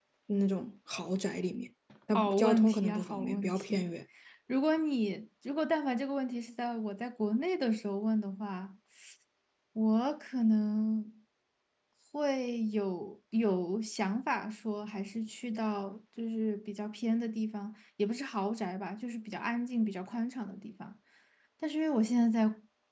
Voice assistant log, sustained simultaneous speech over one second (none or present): present